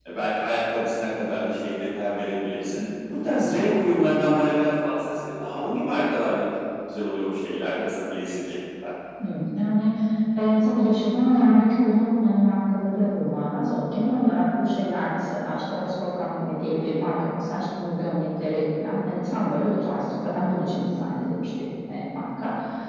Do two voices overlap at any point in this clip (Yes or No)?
No